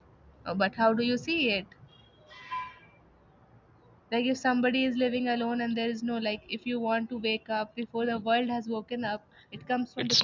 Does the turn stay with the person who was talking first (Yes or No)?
No